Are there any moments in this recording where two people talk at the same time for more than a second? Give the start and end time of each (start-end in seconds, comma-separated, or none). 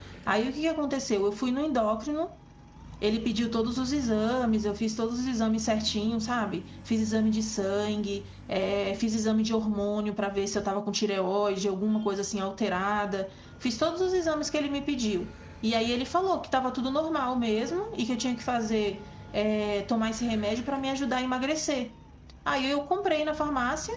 none